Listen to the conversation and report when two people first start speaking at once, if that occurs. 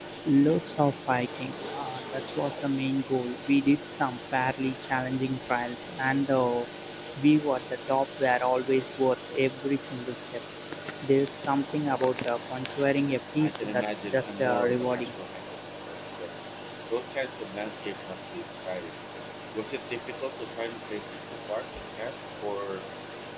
13.4 s

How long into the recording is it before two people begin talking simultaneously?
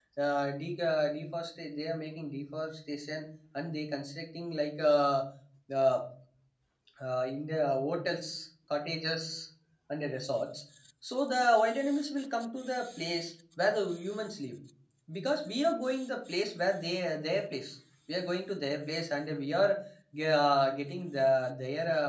none

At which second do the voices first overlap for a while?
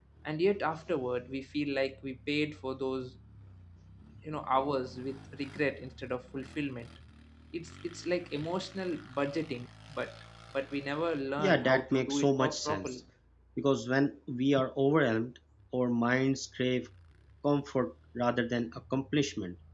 11.4 s

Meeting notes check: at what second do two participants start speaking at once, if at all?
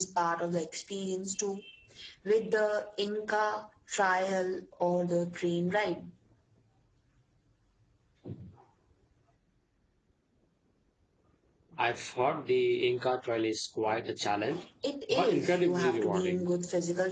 15.1 s

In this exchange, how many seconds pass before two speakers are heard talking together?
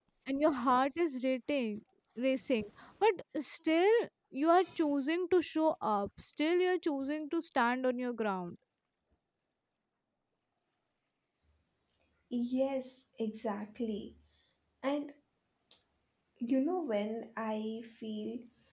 none

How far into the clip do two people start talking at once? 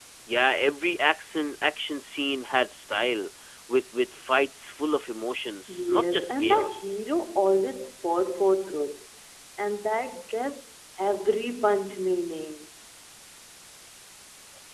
5.7 s

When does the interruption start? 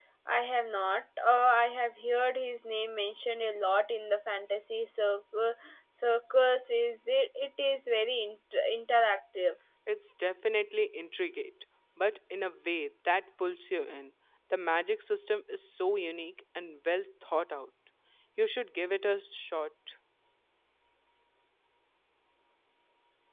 none

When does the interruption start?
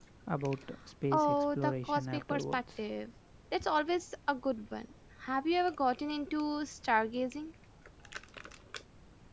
1.1 s

